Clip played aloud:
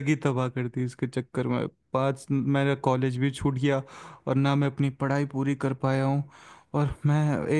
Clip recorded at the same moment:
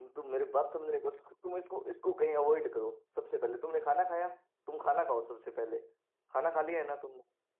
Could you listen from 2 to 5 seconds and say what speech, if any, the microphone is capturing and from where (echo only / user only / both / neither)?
user only